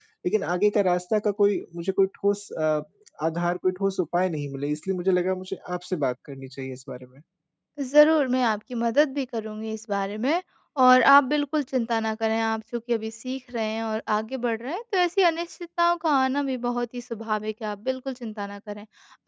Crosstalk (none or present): none